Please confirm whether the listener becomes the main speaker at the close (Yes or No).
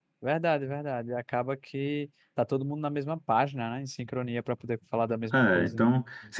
Yes